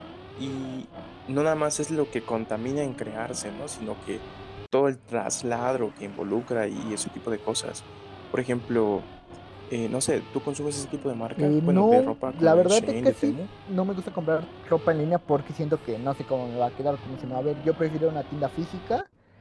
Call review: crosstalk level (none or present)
present